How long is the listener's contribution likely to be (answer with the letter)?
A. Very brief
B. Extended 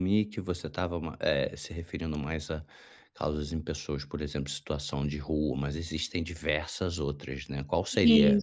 A